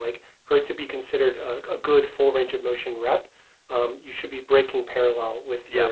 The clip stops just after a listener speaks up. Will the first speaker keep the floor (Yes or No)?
Yes